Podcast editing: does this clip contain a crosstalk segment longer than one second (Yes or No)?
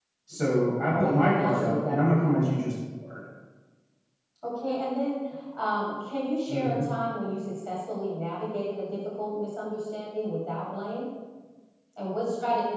Yes